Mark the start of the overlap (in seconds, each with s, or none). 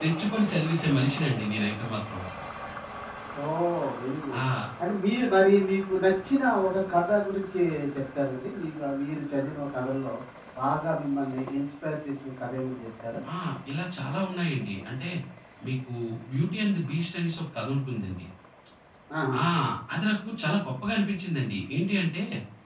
none